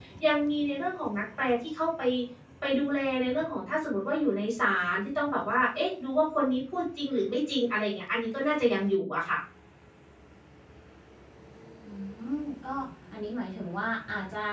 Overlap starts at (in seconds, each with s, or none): none